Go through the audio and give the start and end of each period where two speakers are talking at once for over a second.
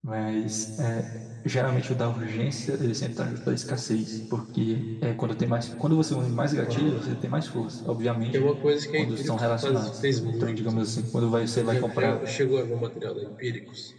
9.0-10.8

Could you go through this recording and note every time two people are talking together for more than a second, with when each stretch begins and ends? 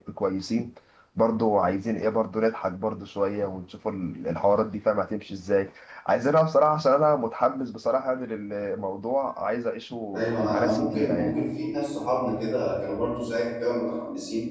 10.2-11.4

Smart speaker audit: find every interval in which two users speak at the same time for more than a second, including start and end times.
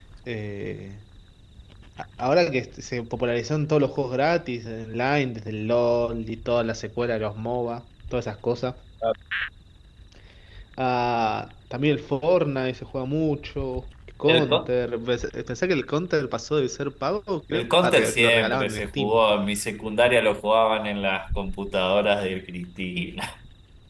17.5-19.2

